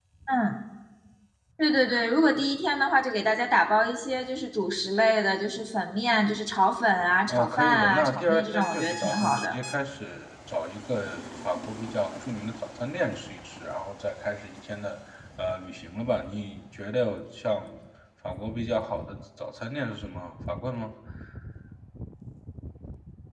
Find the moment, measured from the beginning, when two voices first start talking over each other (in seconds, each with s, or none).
7.3 s